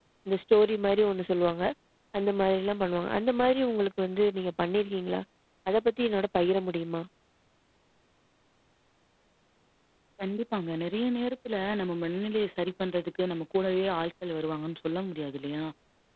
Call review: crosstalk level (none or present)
none